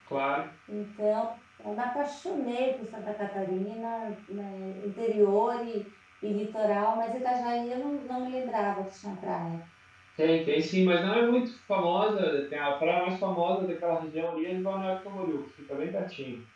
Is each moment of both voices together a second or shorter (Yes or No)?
Yes